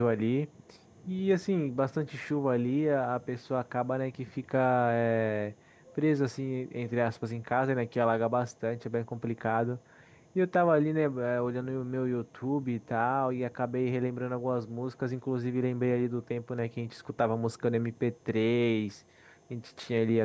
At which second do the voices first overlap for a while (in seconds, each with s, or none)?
none